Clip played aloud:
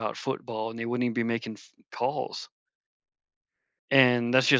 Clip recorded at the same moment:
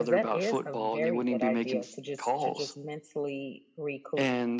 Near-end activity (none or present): present